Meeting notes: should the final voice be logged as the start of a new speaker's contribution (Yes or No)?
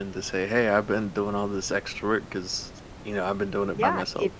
Yes